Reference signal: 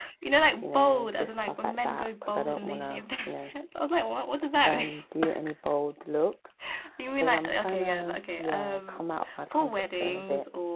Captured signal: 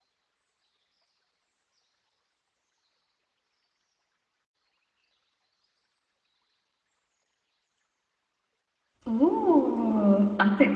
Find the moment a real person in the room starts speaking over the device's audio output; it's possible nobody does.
9 s

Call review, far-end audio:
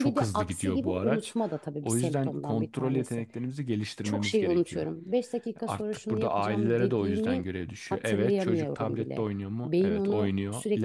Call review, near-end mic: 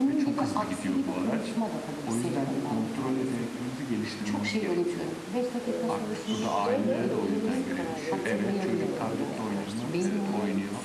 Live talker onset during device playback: 6 s

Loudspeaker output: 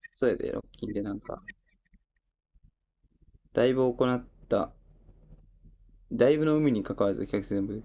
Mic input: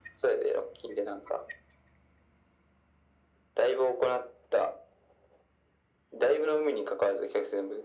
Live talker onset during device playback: none

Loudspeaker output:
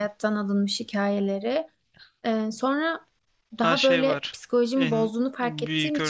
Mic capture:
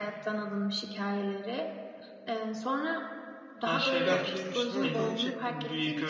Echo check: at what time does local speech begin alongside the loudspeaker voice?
4 s

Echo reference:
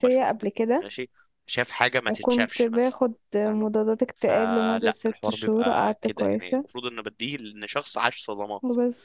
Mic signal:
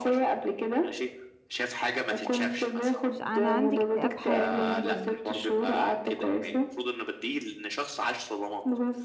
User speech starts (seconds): 3 s

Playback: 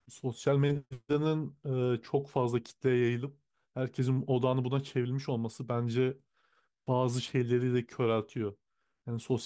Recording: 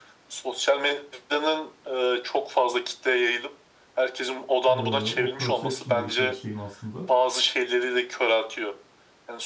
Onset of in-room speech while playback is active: 5 s

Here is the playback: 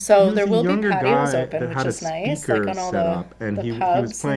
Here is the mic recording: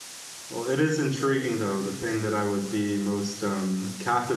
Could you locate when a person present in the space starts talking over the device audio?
0 s

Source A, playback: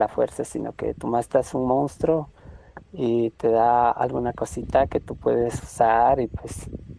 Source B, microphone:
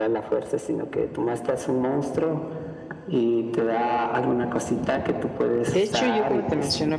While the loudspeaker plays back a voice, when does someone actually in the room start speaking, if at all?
6 s

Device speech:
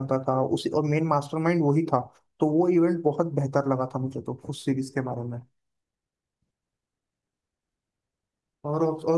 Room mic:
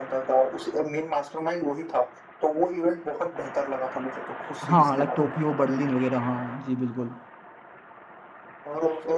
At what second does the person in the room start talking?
5 s

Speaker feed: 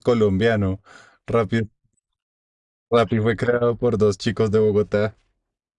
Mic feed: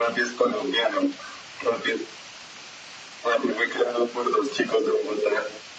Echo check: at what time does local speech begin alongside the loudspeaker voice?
none

